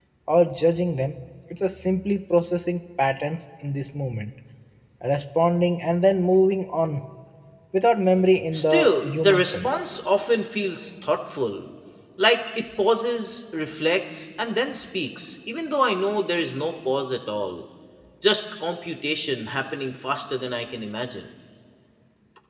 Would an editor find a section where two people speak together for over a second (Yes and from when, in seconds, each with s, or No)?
Yes, from 8.5 s